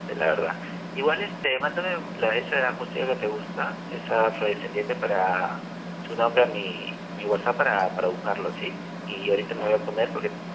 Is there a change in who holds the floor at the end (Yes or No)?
No